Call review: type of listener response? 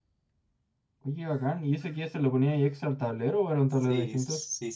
taking over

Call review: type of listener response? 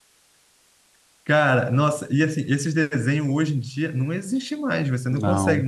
listening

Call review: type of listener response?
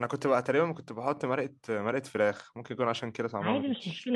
taking over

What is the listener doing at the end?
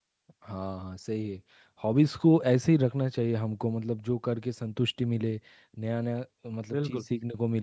listening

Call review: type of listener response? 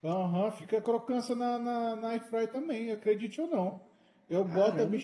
listening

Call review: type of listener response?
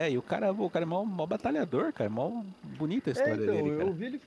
taking over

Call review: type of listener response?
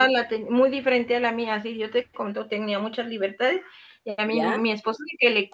listening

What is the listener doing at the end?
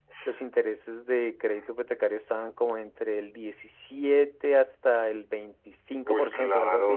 taking over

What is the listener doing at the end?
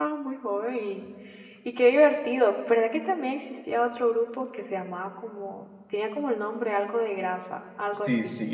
taking over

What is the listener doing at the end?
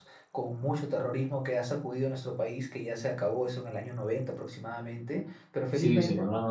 taking over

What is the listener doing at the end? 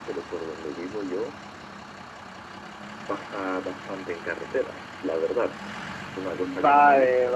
taking over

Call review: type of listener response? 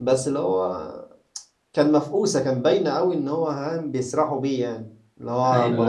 listening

